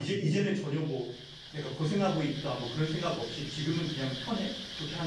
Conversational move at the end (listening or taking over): taking over